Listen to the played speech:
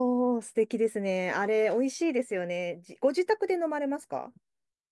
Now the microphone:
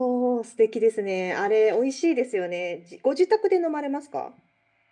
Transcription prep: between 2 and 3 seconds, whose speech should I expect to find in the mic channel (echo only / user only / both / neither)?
echo only